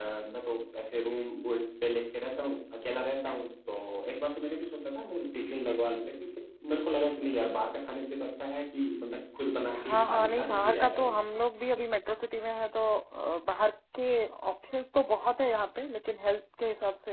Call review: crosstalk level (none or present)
present